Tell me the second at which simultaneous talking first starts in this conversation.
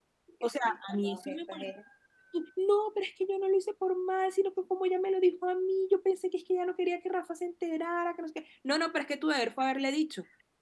0.5 s

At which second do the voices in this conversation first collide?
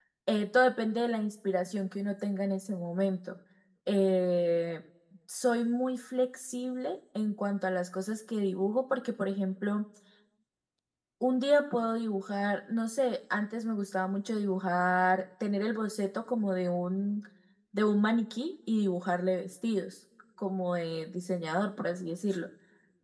none

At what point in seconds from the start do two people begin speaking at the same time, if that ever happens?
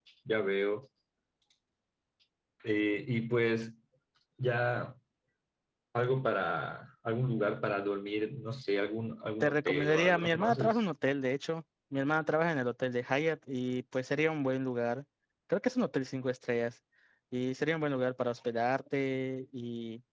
9.4 s

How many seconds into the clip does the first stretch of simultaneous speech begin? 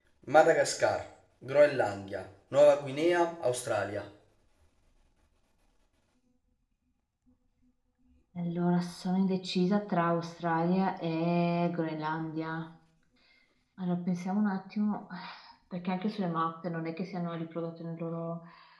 none

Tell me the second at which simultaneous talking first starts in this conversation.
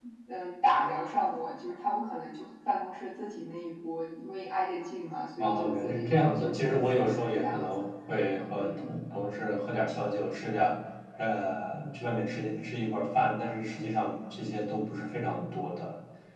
5.4 s

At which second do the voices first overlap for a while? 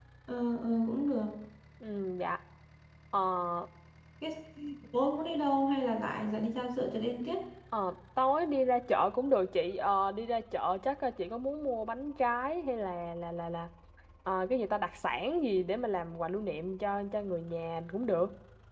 none

